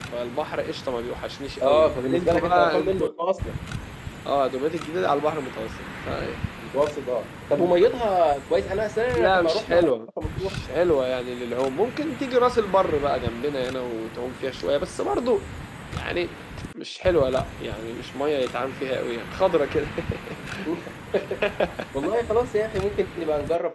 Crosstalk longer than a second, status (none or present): present